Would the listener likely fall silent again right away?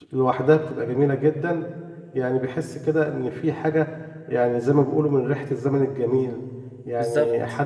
Yes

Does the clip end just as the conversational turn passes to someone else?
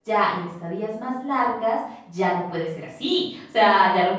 No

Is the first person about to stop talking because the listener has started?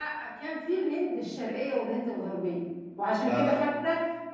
No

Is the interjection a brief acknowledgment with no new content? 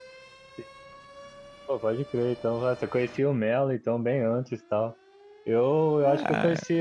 Yes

